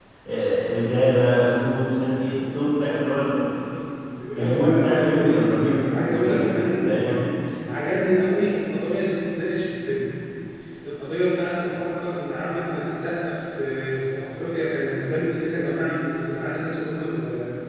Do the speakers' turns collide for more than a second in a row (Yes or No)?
Yes